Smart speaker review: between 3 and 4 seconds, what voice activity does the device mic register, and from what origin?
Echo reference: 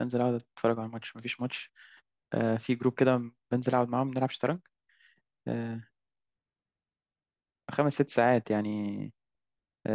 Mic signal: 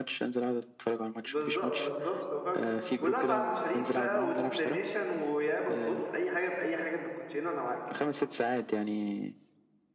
both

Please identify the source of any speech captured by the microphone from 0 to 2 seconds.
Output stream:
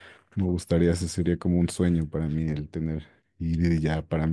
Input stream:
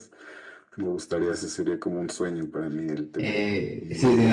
echo only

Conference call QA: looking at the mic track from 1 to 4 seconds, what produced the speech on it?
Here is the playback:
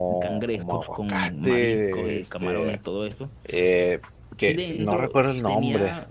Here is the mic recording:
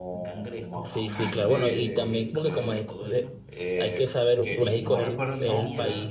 both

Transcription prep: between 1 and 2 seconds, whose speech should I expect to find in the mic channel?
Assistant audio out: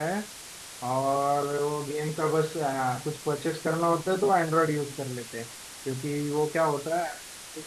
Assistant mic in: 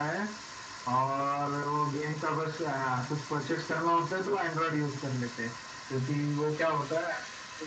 echo only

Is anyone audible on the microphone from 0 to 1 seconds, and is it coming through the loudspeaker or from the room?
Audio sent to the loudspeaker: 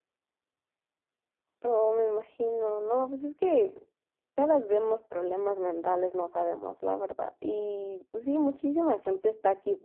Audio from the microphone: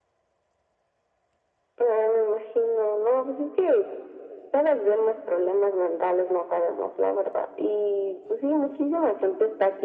neither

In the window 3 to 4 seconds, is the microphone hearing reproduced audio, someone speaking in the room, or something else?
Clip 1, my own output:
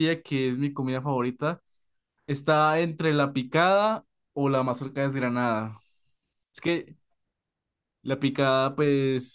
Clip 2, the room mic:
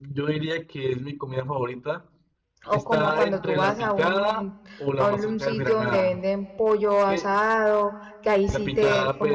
both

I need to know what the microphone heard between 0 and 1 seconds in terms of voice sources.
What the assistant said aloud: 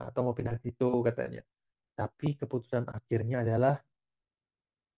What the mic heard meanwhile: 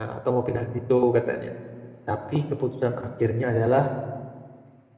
echo only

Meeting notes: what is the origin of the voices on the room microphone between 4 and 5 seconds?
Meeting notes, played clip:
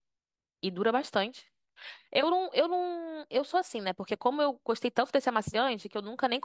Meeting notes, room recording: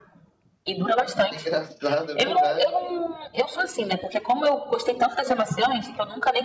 echo only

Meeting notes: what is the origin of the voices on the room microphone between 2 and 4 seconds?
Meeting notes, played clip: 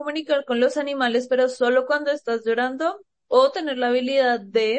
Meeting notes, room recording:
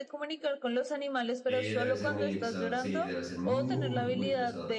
both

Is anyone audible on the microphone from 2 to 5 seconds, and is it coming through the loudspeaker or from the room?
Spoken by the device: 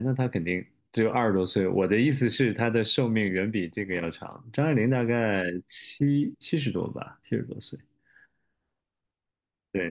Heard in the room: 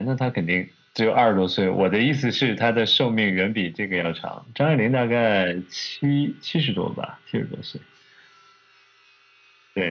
echo only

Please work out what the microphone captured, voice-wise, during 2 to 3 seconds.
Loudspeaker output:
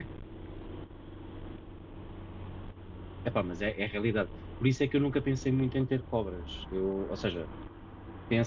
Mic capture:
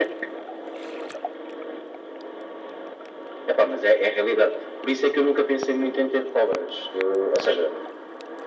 neither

